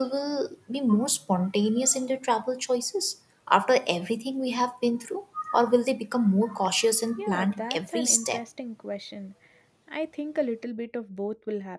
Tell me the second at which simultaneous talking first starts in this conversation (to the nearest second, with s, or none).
7 s